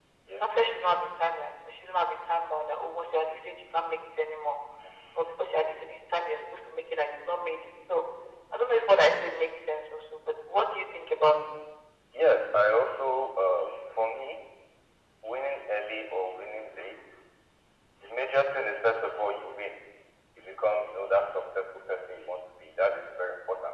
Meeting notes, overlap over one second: none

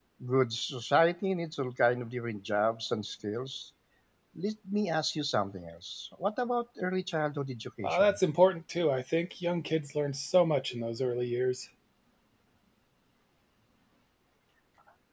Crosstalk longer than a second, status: none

